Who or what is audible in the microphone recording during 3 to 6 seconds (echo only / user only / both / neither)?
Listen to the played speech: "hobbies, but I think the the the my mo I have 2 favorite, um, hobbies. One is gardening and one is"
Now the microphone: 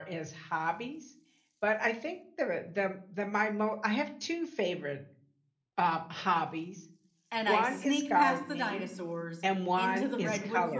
echo only